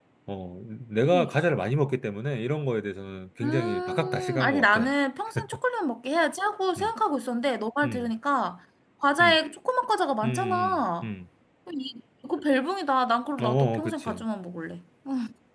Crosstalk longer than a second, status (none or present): present